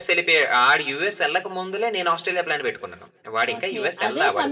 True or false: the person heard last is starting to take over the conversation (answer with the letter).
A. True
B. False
A